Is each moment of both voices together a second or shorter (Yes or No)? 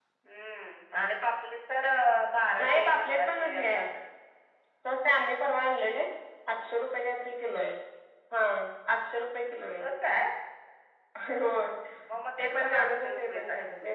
No